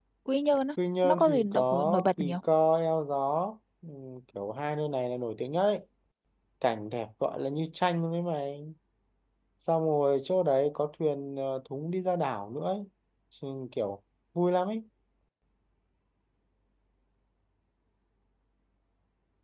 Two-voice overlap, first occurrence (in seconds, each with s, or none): 1.0 s